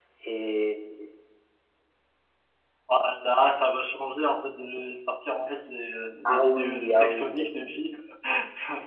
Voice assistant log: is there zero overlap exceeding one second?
No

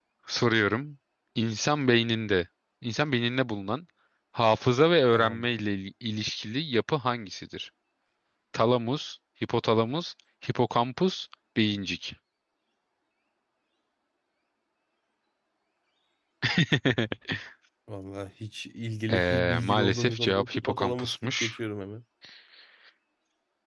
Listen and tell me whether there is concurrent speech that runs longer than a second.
Yes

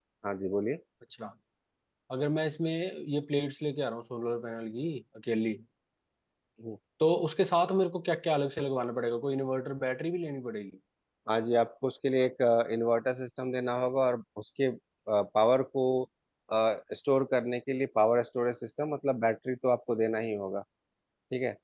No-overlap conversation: Yes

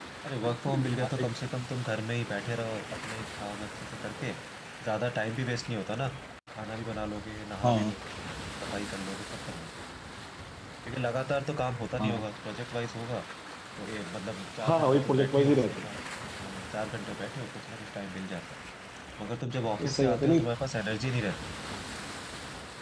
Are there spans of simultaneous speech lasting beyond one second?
Yes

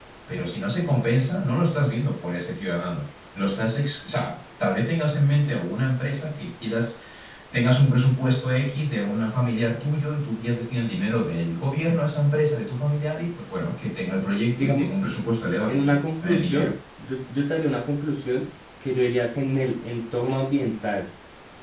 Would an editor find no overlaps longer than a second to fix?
Yes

